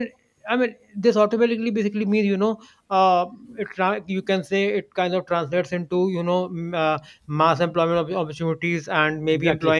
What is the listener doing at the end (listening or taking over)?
listening